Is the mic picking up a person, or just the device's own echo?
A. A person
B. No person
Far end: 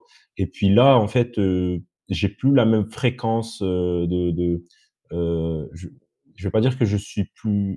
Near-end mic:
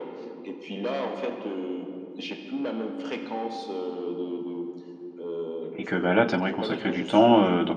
A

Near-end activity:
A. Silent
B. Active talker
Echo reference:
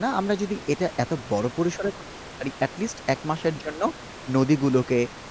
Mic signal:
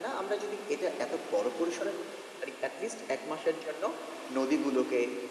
A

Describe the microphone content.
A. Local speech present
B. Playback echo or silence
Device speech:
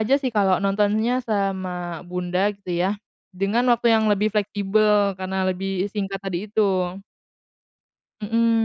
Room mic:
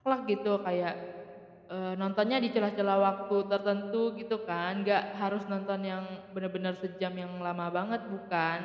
A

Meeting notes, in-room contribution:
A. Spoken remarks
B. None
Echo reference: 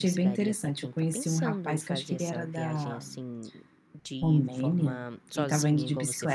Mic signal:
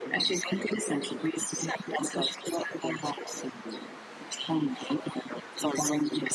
B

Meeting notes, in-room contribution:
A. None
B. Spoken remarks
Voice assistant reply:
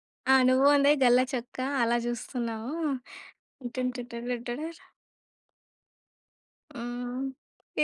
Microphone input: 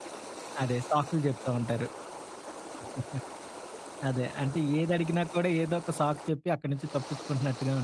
B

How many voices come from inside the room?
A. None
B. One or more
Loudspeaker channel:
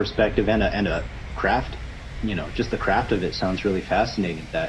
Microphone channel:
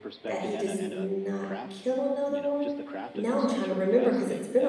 B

